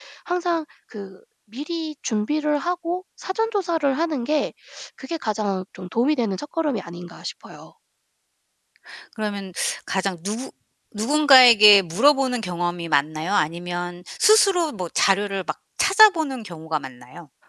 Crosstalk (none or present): none